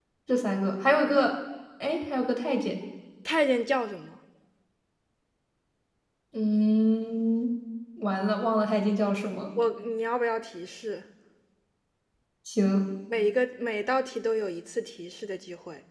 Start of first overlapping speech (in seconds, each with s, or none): none